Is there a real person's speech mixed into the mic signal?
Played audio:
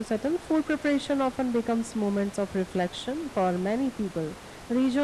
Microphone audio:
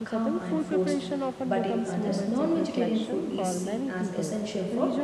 Yes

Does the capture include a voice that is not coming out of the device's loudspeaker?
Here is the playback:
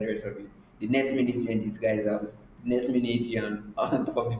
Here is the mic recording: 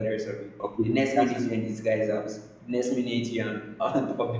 Yes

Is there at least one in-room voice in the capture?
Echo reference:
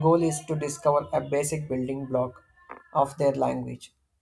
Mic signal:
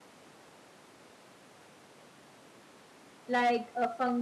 Yes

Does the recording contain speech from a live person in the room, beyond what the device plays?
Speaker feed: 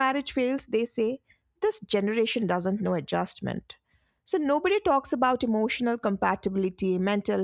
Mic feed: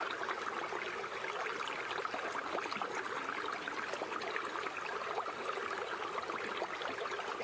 No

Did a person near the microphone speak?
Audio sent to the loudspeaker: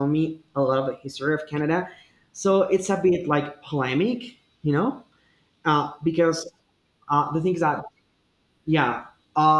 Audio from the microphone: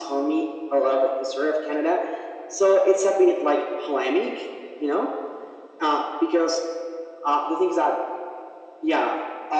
No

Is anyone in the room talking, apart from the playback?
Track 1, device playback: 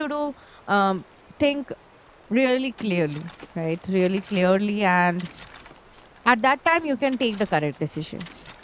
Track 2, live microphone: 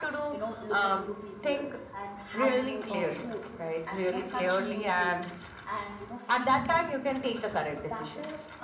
Yes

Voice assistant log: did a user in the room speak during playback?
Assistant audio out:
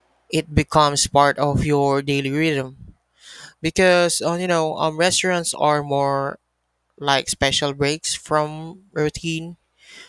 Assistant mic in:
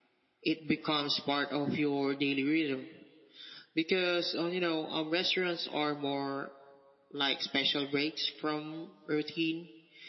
No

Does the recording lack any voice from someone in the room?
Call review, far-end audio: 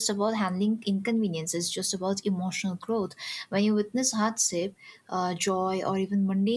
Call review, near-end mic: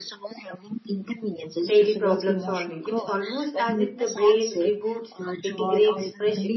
No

